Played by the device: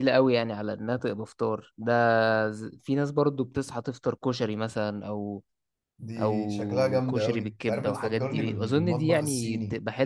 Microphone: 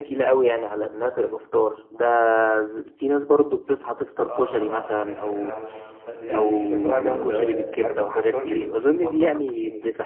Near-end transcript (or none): اه طبعا بحب الحواوشي بس يعني بفضل ال